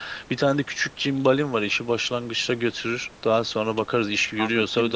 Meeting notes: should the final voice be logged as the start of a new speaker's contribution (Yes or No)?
Yes